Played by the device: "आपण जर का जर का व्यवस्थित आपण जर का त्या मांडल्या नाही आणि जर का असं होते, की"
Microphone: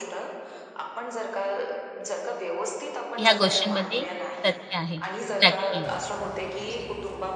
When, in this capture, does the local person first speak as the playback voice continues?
3.2 s

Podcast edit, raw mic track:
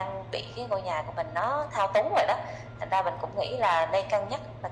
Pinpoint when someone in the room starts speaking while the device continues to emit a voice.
none

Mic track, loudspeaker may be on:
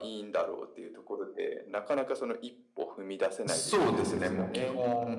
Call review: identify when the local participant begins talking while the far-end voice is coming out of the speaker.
3.5 s

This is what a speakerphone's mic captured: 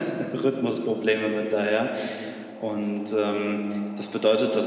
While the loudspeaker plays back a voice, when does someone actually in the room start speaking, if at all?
none

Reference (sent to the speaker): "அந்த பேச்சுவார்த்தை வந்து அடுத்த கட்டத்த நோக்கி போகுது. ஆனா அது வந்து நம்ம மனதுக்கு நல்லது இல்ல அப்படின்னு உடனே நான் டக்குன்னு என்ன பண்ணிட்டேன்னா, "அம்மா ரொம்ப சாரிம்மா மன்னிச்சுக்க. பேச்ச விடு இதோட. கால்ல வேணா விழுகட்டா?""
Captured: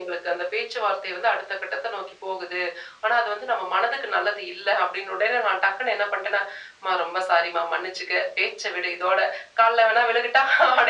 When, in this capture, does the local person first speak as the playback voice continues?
none

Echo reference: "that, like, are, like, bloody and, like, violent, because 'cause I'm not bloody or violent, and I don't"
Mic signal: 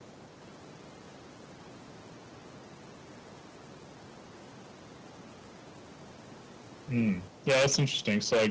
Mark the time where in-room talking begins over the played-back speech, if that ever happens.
6.9 s

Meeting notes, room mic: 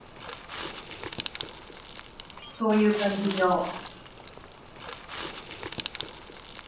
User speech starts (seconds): 2.5 s

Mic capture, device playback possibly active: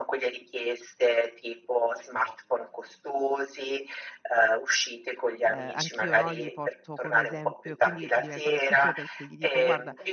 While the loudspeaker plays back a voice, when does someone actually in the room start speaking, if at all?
5.4 s

